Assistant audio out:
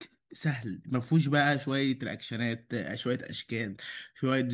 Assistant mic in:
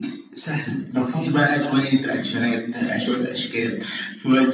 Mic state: echo only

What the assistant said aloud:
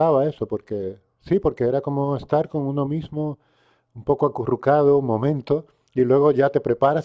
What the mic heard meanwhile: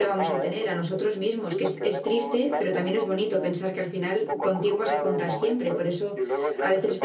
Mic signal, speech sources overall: both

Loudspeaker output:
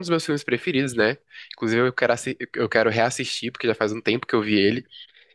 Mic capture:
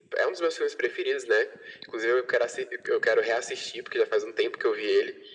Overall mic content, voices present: echo only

